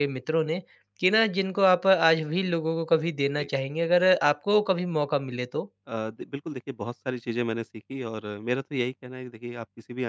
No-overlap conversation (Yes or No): Yes